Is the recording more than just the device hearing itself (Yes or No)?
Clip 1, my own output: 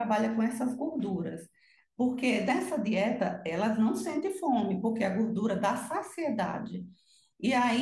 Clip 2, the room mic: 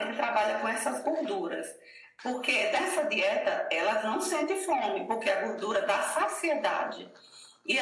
No